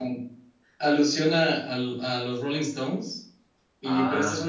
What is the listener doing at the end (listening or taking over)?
listening